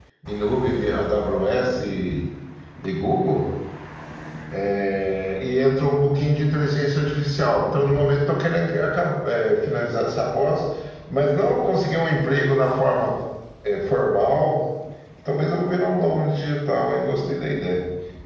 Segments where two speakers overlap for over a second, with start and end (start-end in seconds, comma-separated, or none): none